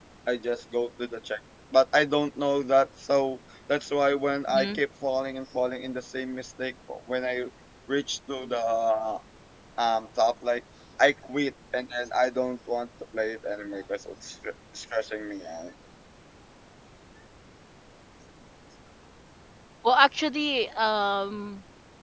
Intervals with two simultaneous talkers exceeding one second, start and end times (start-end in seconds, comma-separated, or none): none